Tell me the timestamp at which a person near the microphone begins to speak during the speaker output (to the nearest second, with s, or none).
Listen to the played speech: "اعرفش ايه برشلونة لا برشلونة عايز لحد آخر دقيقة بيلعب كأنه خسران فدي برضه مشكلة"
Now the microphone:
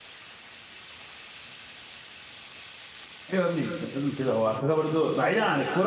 3 s